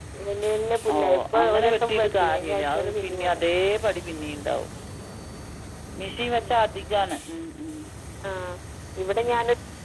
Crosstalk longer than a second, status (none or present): present